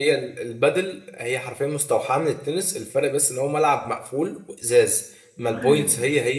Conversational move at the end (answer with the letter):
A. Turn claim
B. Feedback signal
B